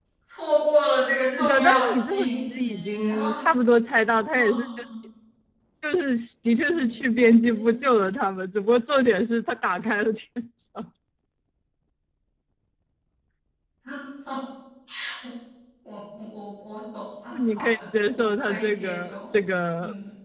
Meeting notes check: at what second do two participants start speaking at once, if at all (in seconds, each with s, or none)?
1.3 s